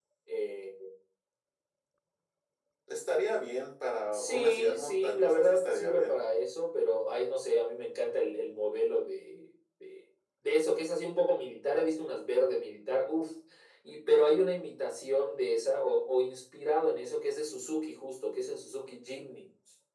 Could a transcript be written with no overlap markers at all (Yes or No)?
No